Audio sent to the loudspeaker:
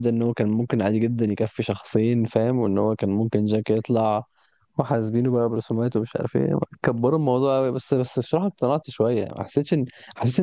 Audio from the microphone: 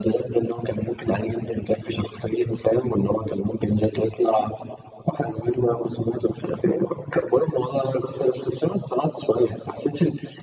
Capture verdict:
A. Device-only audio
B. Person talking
A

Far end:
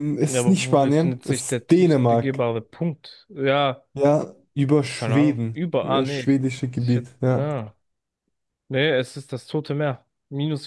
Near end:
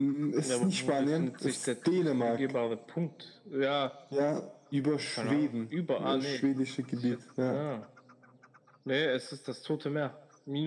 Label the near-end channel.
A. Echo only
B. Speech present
A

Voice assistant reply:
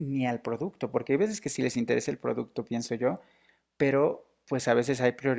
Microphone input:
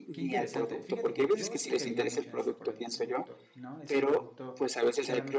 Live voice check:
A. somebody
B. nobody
A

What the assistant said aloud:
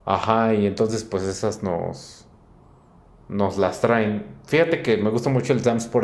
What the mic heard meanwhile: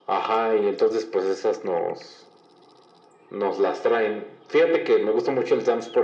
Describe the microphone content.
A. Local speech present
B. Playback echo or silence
B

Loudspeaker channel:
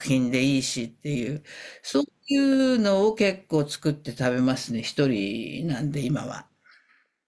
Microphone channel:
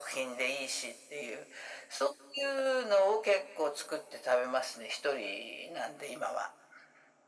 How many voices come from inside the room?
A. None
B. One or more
A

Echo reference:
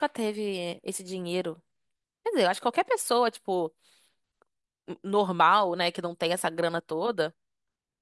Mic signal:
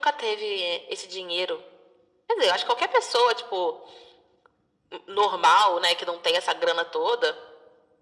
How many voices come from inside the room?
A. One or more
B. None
B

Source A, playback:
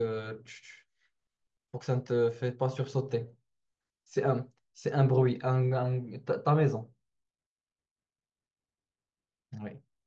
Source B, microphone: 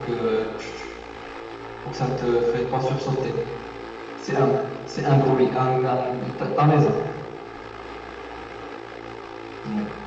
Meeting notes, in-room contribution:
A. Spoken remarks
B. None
B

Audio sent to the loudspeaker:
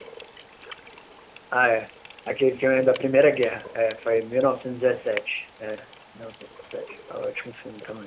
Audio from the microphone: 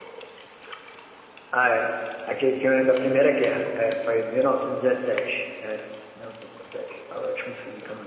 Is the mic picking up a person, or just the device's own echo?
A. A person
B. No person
B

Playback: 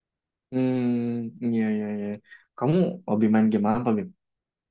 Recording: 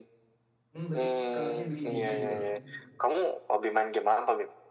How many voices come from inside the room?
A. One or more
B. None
A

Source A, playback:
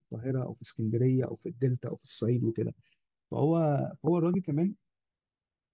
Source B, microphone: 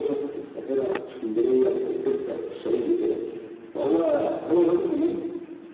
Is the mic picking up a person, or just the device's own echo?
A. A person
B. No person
B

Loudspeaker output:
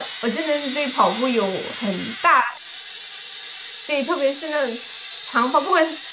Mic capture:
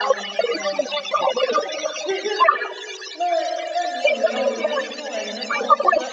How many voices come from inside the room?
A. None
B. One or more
B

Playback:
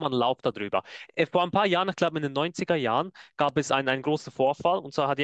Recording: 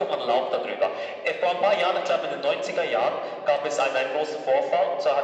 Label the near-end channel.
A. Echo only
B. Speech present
A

